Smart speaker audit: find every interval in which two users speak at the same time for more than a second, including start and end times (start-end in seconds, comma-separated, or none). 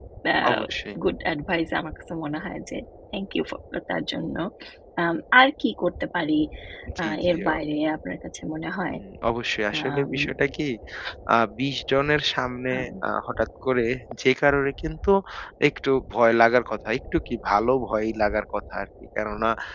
none